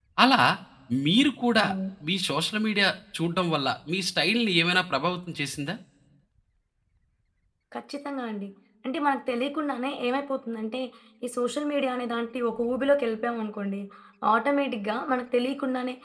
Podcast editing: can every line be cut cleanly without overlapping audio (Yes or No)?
Yes